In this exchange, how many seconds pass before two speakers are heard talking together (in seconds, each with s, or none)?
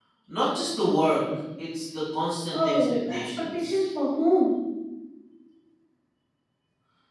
2.5 s